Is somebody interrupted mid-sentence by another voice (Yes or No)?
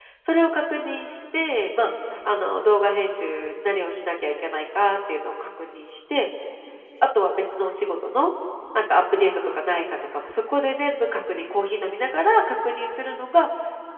No